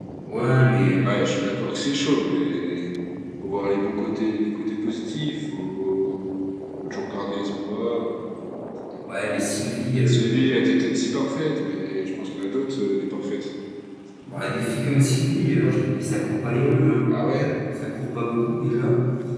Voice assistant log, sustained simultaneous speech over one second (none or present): none